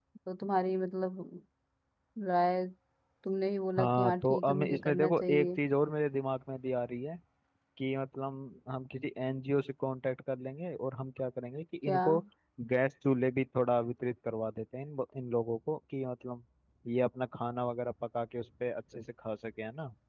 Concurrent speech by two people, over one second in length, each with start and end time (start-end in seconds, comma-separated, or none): 3.8-5.5